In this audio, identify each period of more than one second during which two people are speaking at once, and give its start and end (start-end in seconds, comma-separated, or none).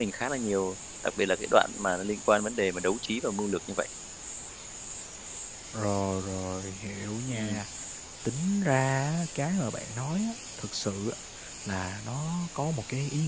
none